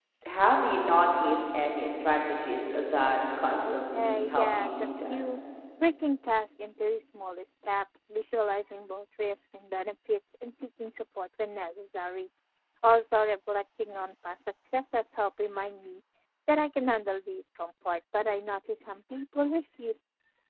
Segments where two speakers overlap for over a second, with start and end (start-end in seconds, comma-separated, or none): 3.5-5.2